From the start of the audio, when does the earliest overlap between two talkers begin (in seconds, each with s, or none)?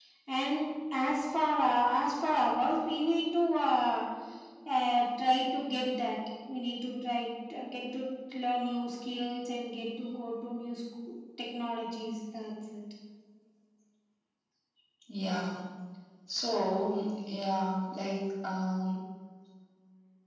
none